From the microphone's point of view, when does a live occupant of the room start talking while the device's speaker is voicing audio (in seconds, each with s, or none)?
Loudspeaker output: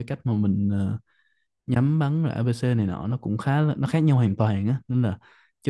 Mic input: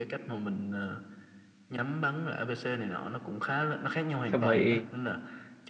4.2 s